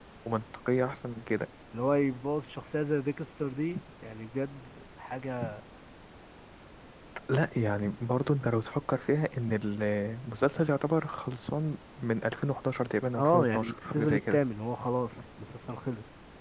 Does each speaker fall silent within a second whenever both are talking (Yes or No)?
No